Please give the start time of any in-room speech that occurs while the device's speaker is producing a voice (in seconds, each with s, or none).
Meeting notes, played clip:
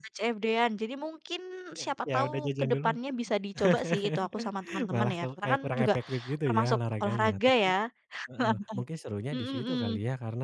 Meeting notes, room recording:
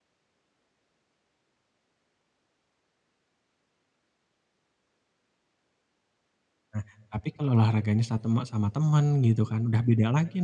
6.7 s